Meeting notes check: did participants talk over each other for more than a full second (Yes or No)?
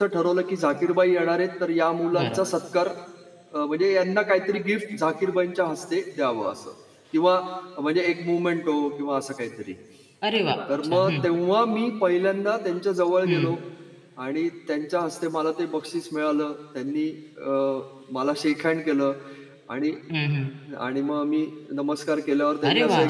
No